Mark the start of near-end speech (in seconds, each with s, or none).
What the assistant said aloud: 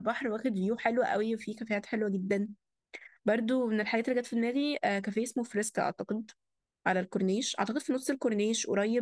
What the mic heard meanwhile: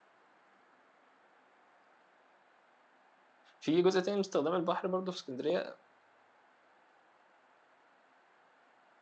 3.6 s